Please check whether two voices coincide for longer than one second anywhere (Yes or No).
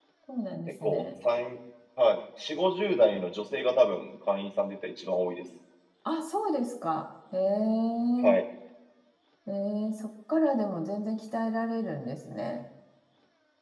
No